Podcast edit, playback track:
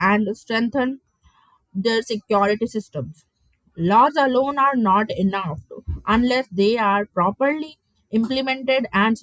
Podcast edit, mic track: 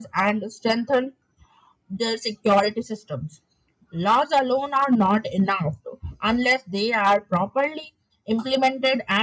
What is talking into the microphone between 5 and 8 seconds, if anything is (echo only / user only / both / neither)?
echo only